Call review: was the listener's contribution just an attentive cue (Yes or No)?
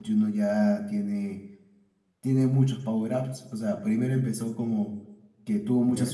Yes